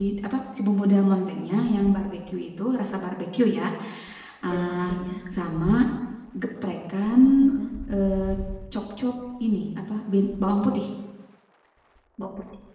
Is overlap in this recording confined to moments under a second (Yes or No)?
Yes